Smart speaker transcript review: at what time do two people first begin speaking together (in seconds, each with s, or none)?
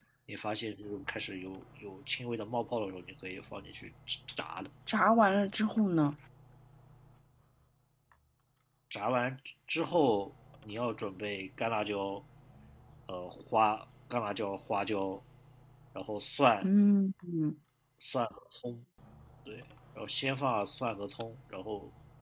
none